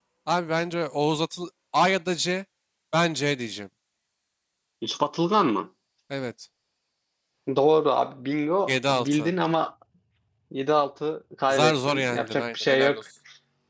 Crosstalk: present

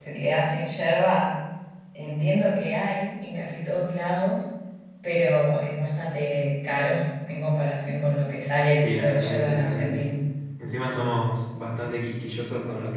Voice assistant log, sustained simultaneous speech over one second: present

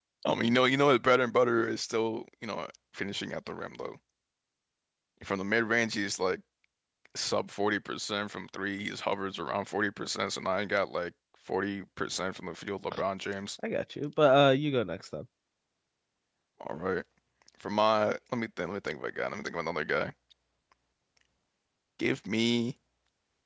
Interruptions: none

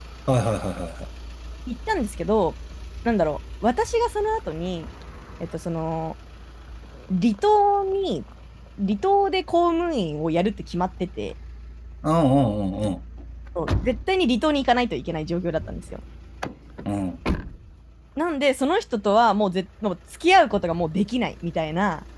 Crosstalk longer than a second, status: none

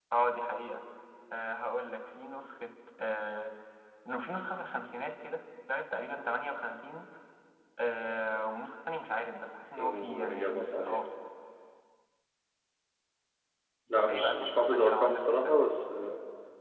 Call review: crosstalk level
present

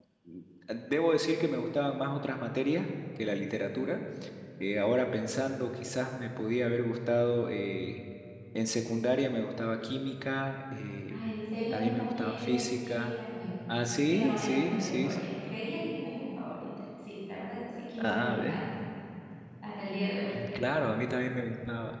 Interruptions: present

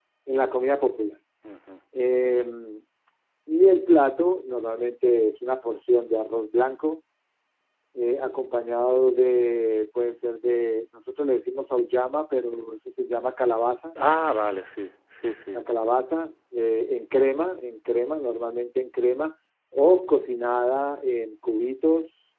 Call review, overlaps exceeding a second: none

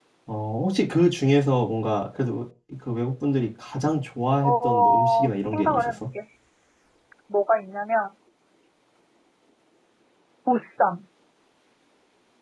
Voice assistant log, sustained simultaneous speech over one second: present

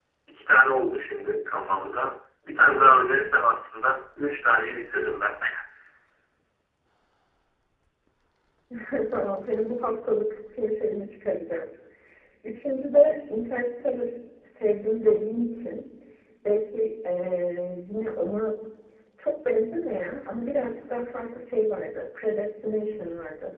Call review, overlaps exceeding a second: none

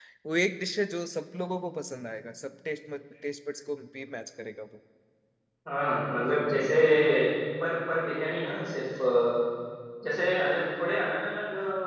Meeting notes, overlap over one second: none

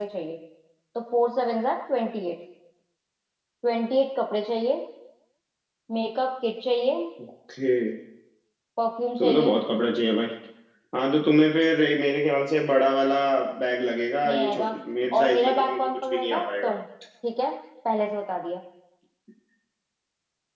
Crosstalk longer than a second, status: present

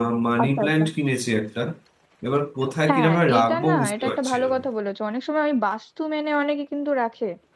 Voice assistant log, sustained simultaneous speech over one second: present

